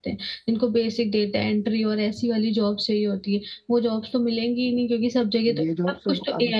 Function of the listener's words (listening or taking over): taking over